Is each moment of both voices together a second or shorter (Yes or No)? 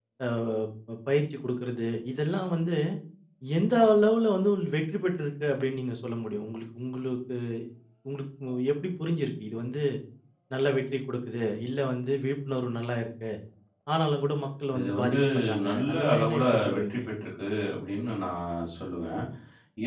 No